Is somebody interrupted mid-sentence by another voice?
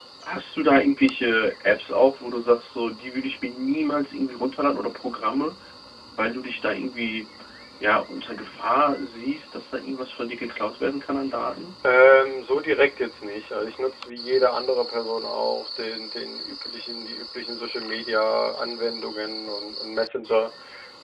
No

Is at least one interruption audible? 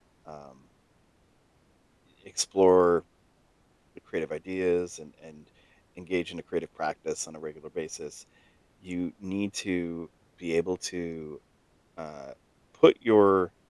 No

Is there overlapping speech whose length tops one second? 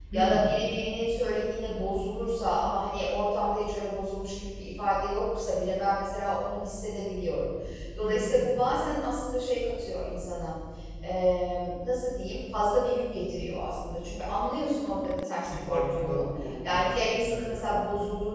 Yes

